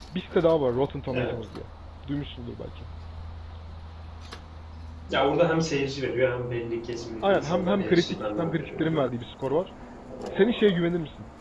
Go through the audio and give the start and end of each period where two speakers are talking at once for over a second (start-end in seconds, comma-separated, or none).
7.2-9.1